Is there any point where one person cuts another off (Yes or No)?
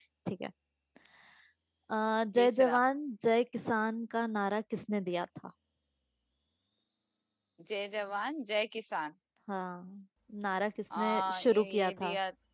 Yes